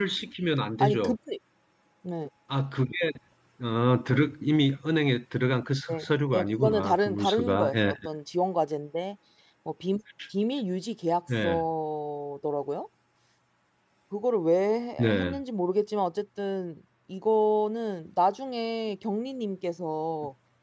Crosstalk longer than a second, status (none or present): present